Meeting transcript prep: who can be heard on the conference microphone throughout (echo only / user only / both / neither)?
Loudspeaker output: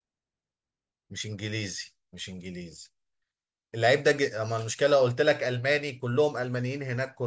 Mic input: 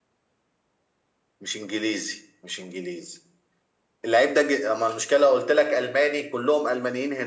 echo only